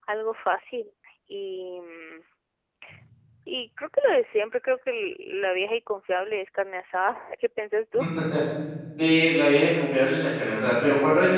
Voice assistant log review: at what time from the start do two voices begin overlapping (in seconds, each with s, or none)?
none